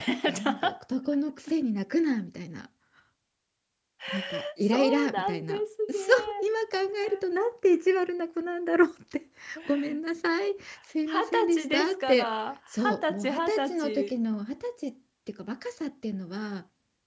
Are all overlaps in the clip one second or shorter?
No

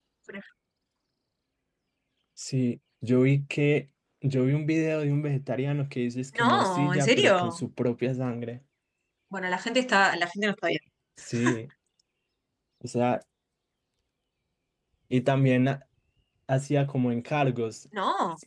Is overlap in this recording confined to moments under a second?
No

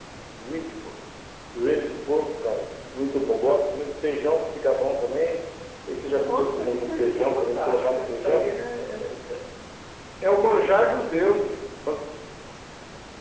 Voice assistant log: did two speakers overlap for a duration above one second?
Yes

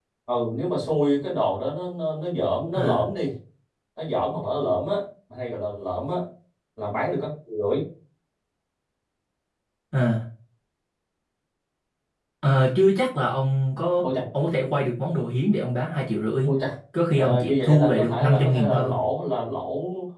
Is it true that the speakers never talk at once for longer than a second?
No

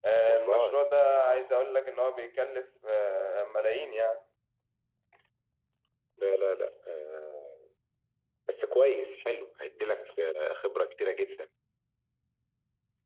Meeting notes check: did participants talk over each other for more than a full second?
No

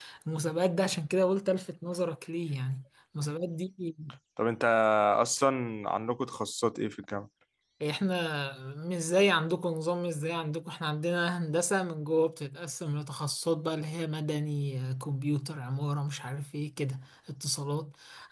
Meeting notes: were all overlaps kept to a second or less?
Yes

